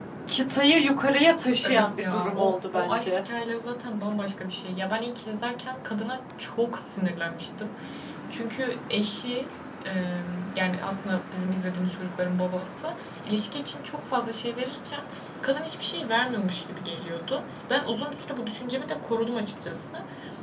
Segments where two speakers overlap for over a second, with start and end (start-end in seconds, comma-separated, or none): 1.6-3.2